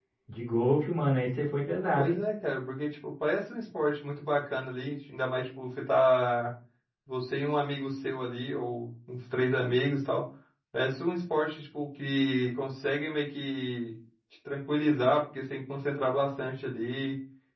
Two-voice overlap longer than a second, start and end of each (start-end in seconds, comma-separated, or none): none